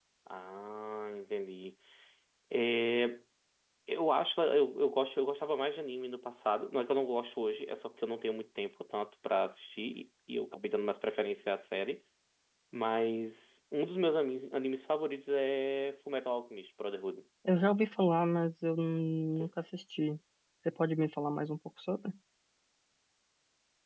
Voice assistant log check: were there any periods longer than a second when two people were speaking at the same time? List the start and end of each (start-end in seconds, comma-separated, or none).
none